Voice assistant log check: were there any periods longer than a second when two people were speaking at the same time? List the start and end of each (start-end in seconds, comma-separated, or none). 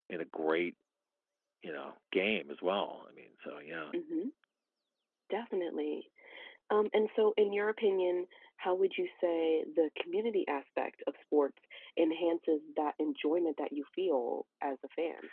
none